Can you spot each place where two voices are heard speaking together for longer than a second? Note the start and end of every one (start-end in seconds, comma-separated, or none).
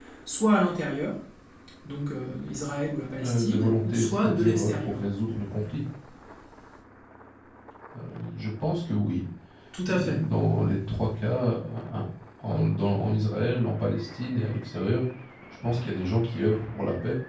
3.2-5.0